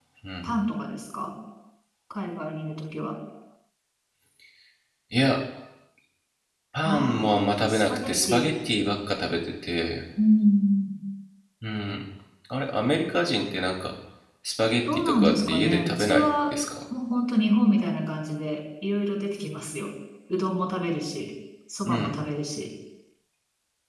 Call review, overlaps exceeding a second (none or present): present